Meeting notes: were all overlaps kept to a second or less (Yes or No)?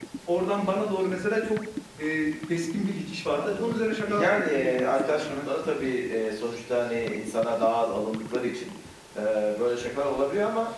No